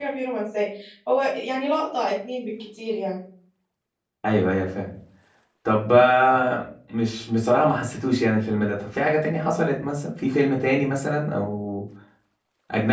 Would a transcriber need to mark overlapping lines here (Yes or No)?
No